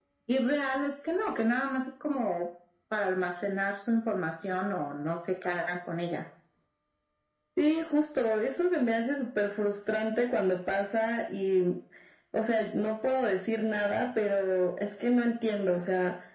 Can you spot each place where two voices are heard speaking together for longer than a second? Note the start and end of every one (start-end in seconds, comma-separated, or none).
none